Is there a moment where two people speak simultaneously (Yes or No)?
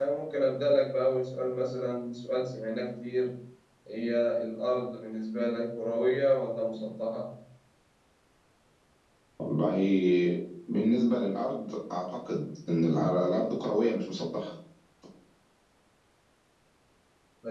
No